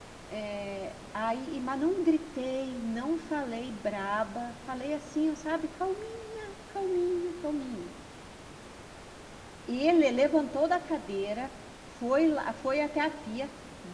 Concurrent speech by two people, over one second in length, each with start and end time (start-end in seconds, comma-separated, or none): none